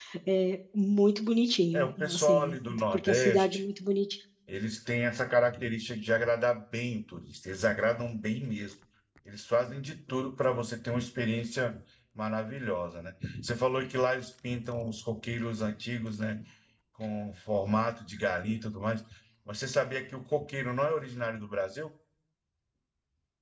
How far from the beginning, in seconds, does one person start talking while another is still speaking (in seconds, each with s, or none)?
1.7 s